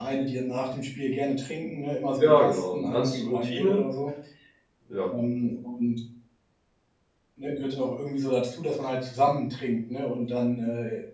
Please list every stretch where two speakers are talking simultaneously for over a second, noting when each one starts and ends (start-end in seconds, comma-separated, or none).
2.2-3.8